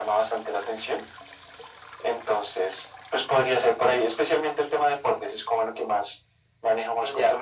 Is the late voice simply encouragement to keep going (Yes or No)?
No